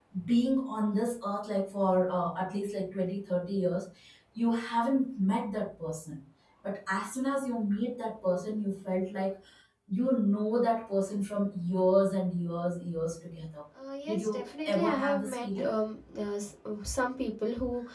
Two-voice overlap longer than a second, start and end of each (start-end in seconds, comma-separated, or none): 14.1-15.7